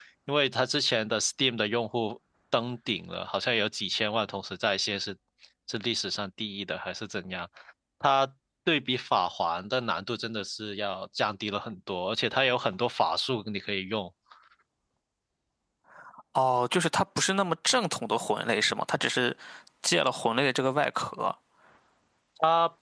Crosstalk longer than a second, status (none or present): none